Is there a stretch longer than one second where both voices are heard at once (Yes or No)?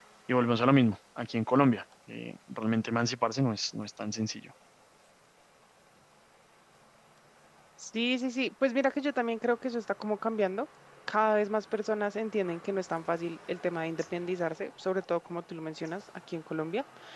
No